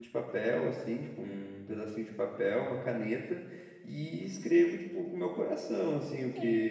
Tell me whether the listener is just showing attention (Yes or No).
No